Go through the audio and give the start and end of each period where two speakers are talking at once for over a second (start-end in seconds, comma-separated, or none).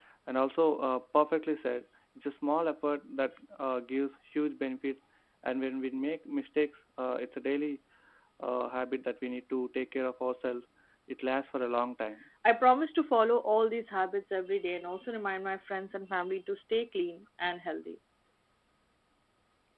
none